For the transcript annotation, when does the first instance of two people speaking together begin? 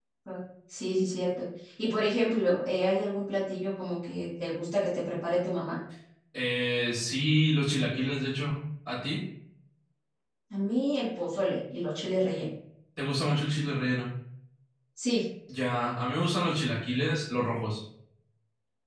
none

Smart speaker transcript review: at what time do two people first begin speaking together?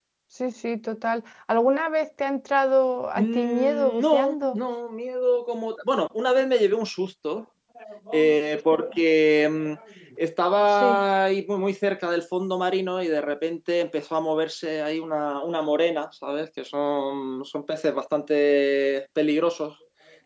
3 s

